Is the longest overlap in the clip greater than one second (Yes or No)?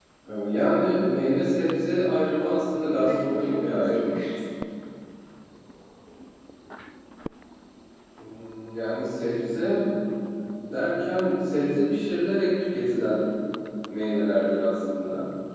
Yes